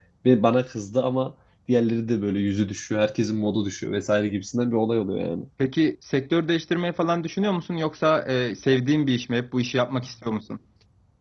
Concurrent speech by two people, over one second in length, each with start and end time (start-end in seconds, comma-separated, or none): none